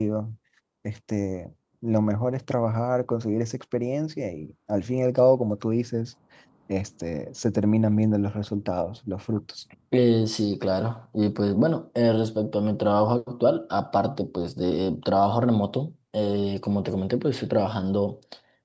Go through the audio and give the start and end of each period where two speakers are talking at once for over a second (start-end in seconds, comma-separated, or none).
none